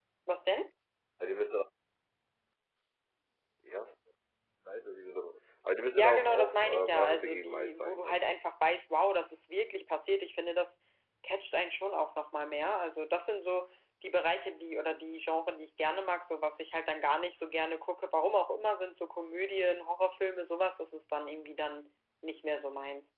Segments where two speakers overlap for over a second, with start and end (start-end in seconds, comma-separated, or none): 5.9-8.4